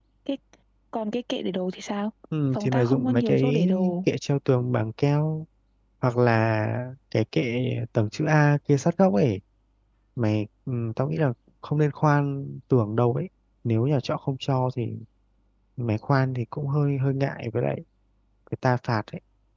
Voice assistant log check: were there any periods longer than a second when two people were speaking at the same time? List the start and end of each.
2.5-3.9

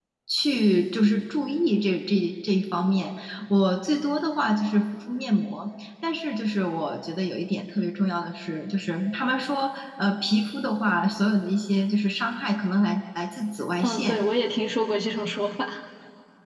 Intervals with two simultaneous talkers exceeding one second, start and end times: none

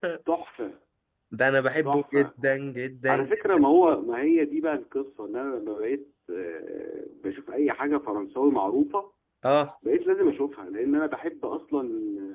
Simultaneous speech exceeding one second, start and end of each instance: none

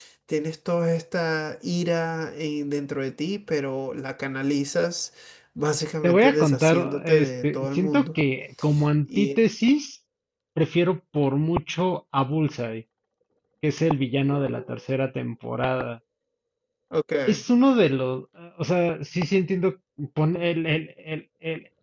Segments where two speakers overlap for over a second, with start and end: 6.0-8.1

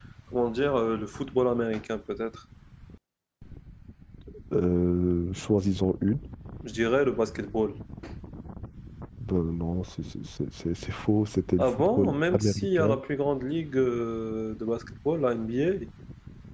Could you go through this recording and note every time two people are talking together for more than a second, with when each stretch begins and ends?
11.6-12.9

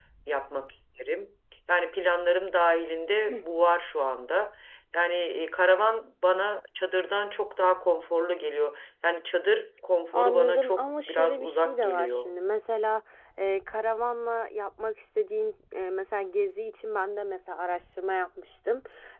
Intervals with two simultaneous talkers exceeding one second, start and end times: 10.1-12.2

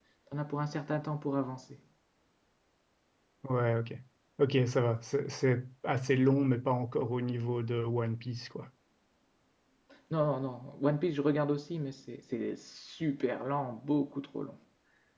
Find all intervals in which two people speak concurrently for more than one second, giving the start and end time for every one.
none

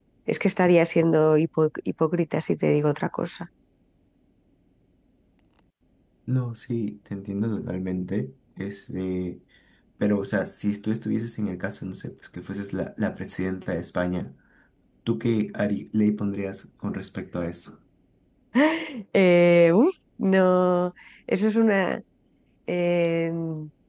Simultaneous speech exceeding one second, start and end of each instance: none

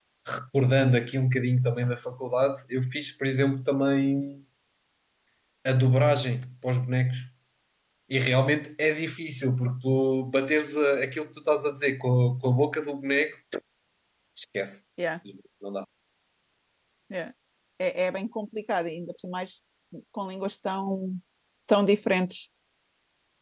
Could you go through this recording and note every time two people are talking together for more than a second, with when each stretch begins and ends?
none

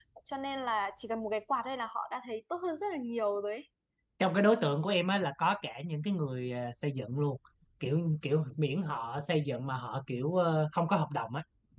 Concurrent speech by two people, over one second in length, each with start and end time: none

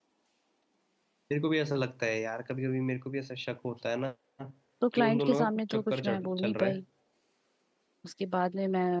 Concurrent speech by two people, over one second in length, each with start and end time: 5.0-6.7

